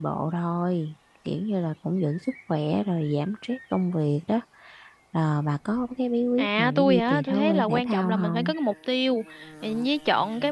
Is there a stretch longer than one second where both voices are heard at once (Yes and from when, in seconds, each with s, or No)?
Yes, from 6.4 s